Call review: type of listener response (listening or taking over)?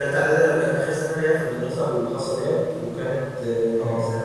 listening